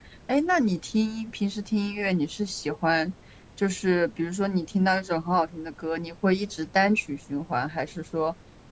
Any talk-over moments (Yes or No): No